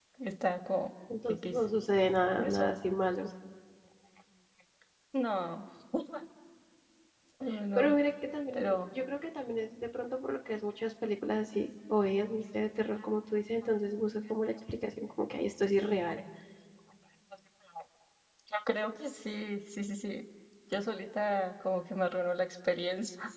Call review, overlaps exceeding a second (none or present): none